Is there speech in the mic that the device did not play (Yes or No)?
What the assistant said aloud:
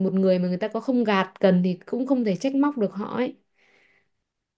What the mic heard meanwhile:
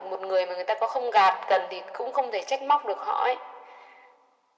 No